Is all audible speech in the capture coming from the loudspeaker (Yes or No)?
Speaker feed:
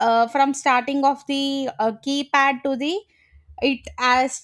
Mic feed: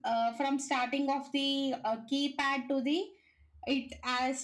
Yes